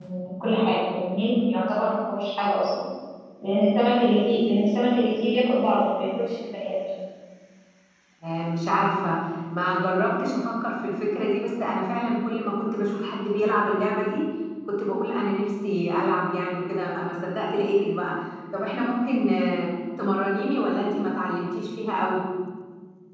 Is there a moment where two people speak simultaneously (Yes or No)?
No